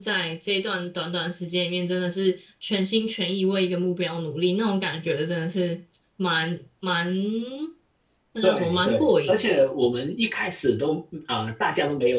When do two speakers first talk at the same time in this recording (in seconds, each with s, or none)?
8.4 s